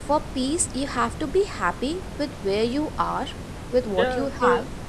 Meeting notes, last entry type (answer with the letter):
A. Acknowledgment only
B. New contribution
B